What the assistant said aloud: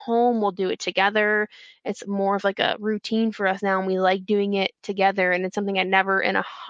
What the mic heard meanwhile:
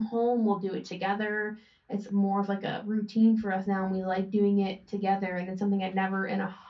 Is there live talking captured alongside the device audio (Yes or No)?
No